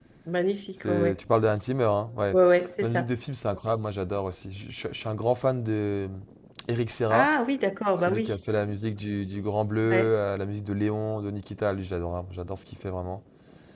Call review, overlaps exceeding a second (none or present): none